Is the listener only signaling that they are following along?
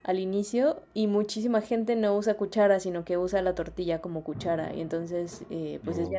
Yes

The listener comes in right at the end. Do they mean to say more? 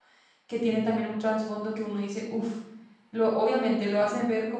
No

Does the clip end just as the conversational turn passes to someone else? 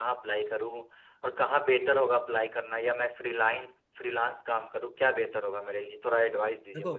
Yes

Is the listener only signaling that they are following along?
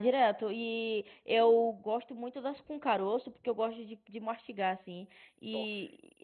Yes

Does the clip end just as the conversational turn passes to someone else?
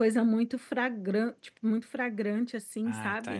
Yes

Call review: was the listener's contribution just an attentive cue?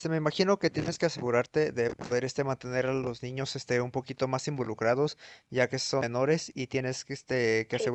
Yes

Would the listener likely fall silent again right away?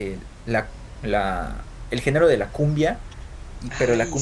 Yes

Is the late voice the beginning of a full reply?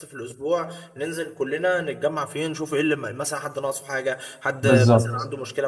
No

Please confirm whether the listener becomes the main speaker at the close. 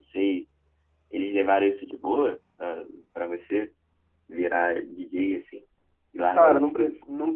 Yes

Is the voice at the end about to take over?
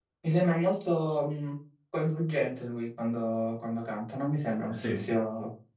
No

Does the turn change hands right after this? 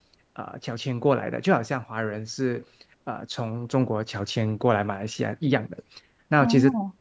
No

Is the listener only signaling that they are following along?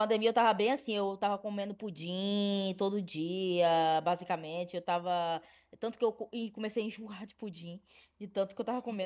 Yes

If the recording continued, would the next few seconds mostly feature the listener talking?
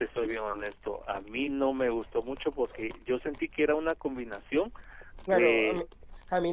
Yes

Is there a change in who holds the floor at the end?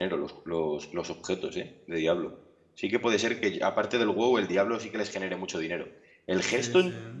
No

